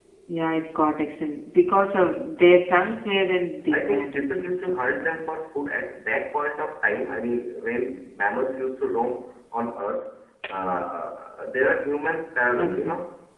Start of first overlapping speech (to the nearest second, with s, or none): 4 s